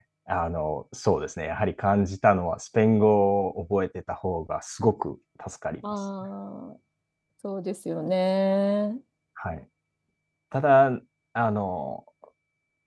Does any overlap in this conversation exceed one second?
No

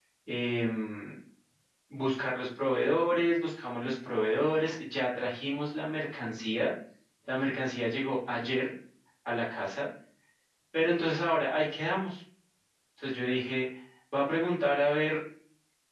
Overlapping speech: No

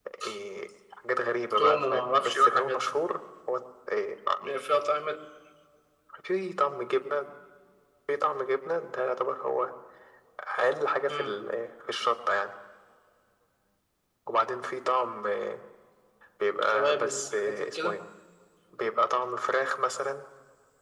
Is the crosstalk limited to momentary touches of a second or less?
No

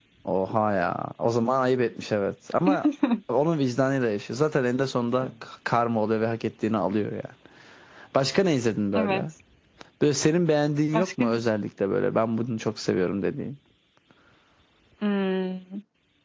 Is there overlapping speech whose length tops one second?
No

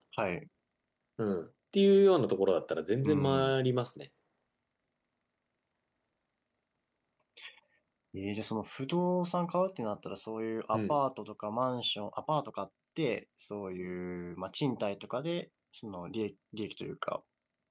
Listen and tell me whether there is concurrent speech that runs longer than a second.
No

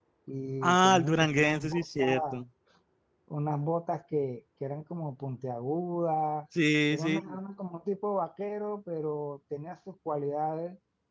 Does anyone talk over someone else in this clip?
Yes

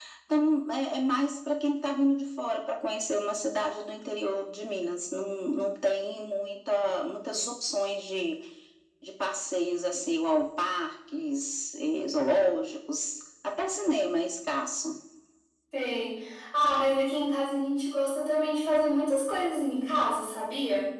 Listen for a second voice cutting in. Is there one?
No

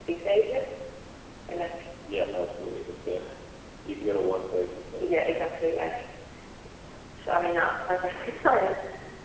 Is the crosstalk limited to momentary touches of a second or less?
Yes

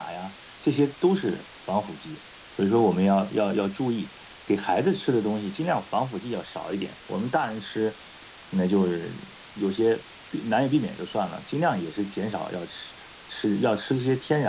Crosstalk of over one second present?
No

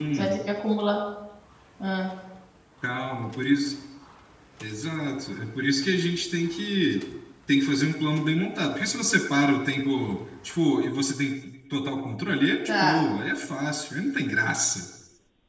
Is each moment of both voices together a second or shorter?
Yes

